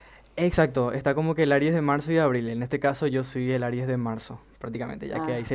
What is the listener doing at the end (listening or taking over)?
listening